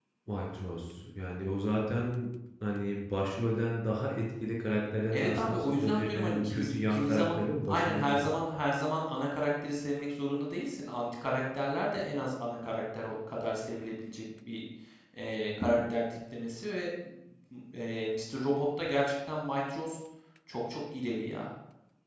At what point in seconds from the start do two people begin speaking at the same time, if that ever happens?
5.1 s

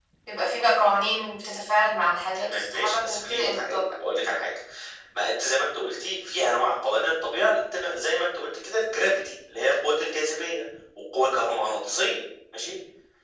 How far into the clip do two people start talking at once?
2.4 s

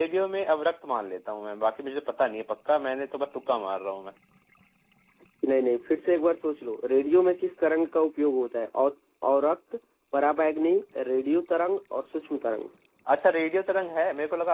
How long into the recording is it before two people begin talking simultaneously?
none

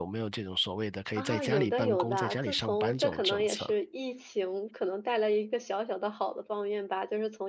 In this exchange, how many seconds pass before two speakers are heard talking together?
1.2 s

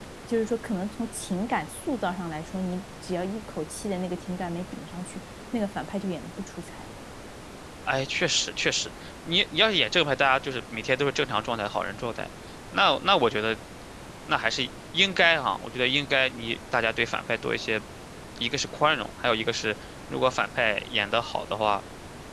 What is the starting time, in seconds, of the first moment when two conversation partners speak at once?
none

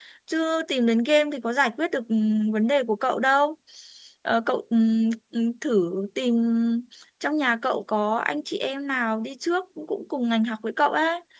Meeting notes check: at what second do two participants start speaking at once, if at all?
none

